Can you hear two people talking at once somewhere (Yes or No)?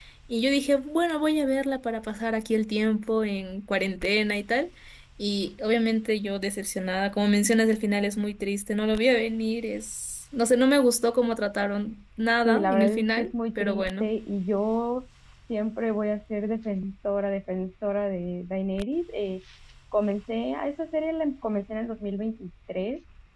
Yes